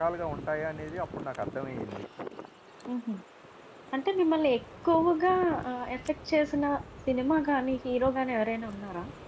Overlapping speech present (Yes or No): No